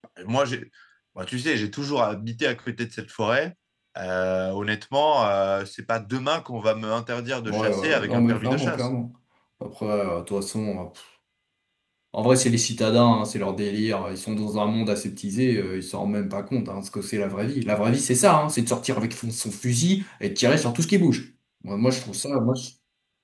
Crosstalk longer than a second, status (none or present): present